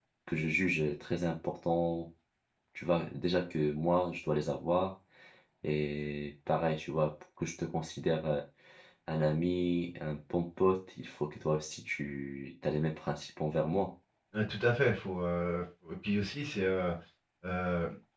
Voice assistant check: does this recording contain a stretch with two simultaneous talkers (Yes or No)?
No